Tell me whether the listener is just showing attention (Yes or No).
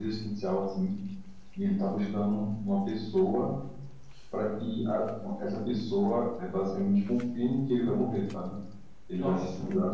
Yes